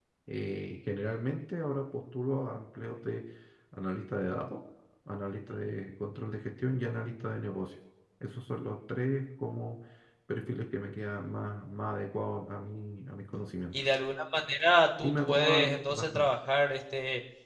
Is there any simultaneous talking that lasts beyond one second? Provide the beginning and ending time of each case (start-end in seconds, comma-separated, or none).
15.0-16.2